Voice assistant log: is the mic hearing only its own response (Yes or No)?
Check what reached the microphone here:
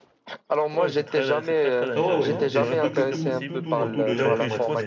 No